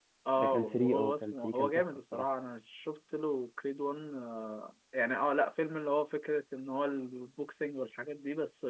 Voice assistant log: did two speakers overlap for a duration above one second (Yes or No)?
Yes